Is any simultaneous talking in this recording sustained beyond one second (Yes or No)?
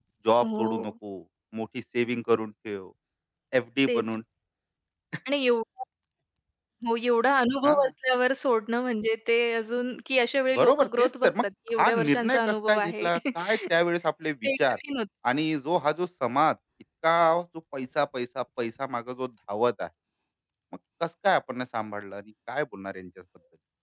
Yes